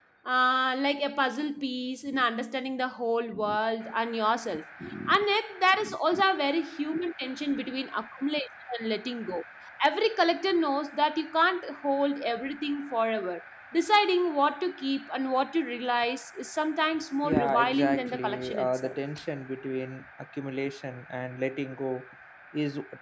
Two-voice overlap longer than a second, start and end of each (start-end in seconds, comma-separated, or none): 17.2-18.9